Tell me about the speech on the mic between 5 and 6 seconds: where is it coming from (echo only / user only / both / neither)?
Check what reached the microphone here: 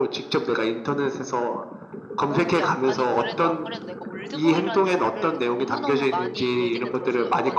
both